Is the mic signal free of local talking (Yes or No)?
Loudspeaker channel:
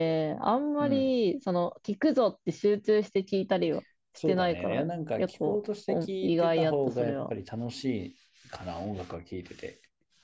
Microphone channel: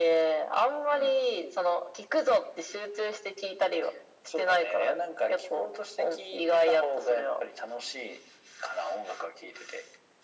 Yes